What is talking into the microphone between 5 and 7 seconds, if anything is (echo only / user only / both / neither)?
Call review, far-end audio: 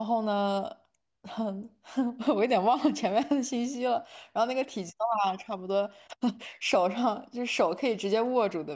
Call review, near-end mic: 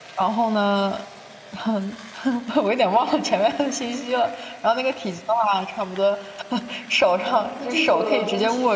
echo only